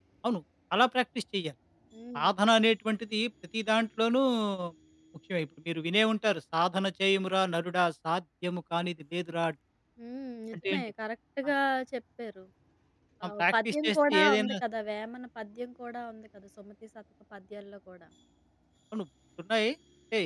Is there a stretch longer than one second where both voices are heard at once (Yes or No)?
Yes